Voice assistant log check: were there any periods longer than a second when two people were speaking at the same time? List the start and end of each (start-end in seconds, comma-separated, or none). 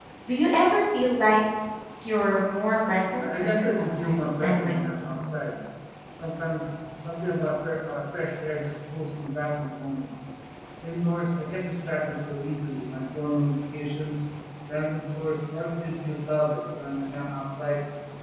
3.2-5.2